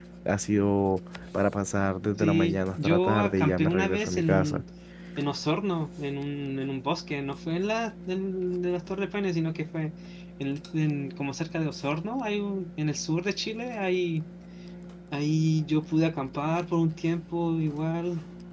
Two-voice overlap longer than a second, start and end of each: 2.2-4.6

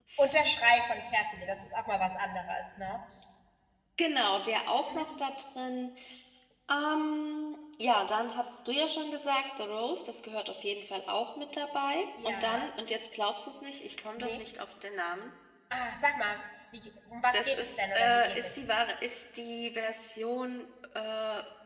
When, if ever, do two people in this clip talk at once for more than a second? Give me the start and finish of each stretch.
17.3-18.6

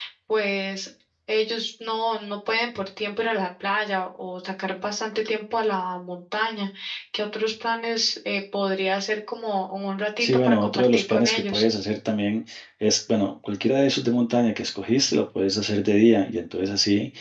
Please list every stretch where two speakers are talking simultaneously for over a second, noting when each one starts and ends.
10.2-11.6

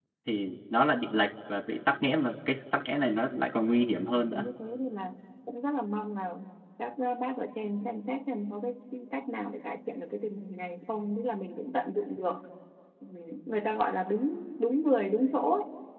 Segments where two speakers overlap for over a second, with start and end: none

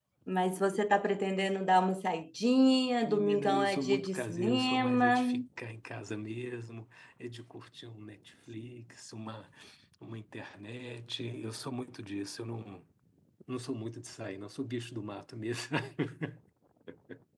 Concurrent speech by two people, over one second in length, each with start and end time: 3.0-5.2

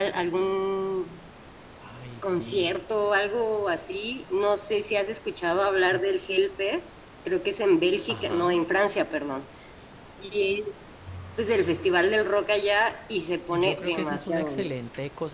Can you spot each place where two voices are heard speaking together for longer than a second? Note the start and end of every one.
13.5-14.8

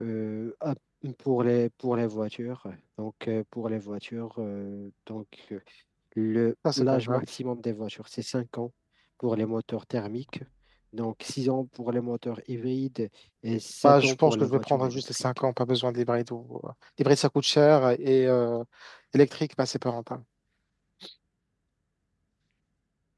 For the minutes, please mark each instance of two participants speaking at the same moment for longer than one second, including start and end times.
13.8-15.4

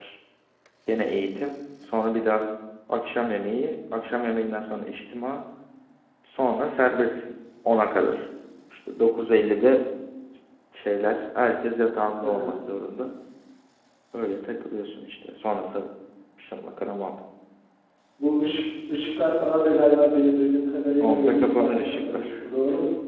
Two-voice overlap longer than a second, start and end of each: 21.0-22.3

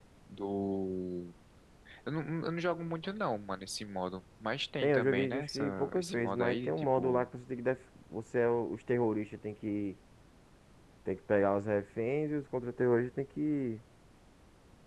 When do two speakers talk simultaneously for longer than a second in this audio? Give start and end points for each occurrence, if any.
4.8-7.3

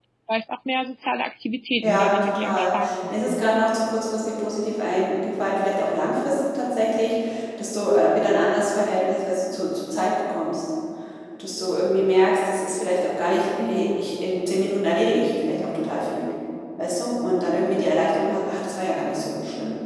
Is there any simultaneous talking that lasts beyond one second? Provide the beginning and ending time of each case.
1.8-3.4

